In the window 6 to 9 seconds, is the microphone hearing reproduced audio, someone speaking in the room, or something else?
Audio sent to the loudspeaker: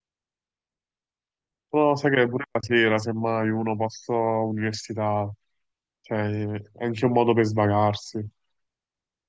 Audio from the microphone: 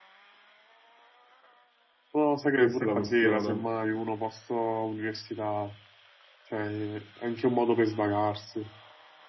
echo only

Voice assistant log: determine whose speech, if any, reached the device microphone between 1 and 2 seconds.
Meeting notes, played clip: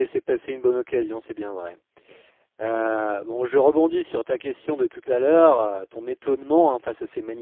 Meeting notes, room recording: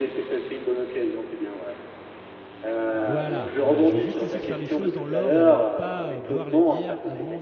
echo only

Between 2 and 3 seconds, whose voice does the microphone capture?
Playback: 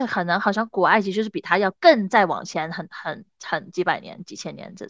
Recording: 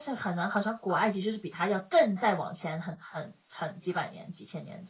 echo only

